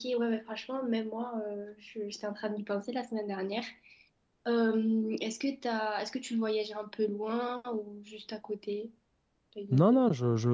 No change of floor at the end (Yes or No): No